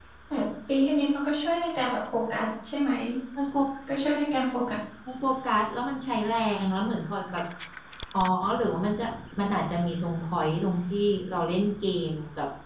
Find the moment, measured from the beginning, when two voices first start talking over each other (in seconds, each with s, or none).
none